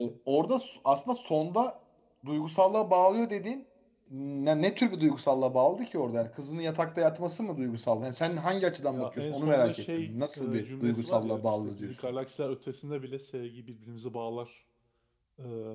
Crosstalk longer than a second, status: present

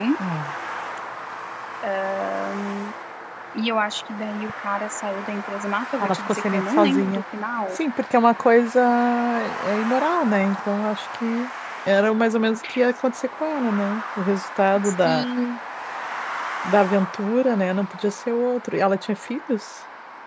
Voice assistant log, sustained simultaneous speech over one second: present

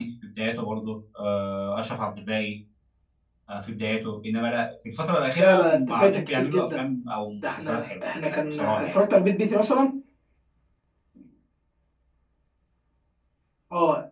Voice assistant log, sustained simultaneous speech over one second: present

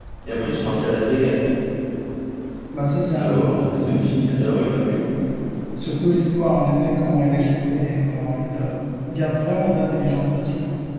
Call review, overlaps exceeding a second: present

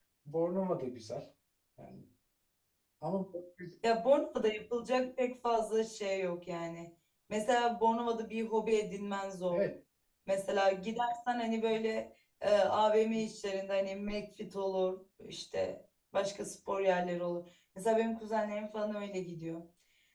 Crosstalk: none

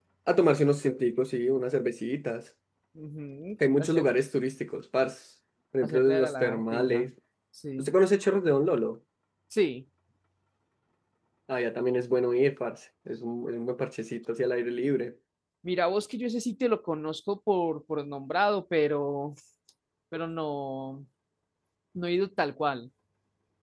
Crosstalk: present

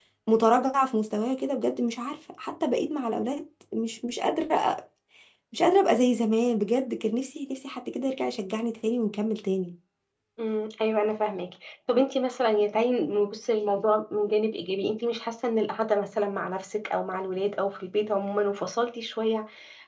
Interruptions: none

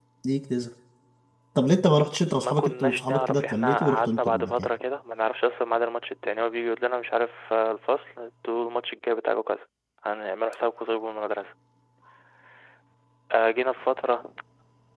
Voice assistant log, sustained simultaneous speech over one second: present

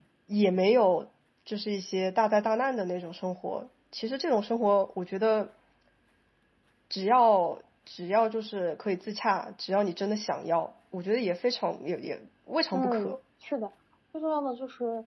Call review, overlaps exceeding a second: none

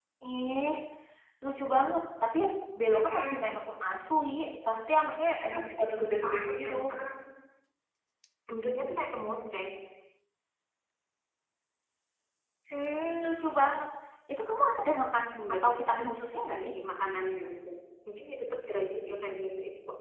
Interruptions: present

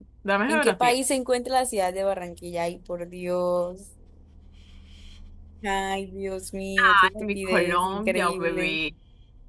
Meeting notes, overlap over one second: present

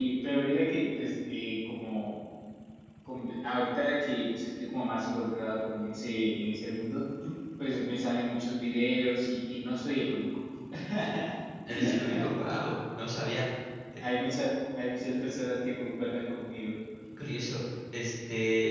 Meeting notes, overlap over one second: none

